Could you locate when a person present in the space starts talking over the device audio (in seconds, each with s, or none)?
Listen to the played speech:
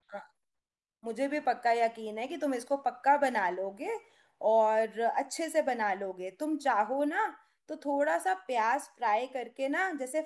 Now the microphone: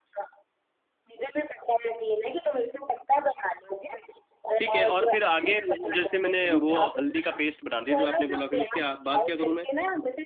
4.6 s